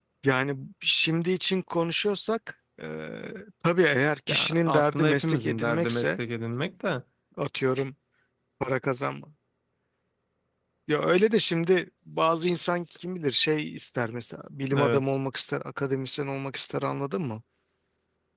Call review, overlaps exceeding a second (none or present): present